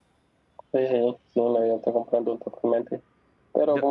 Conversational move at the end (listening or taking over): listening